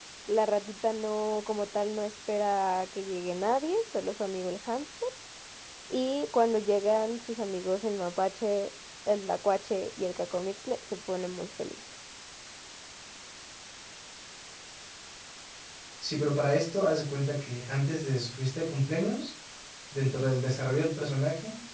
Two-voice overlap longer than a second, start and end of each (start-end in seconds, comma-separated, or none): none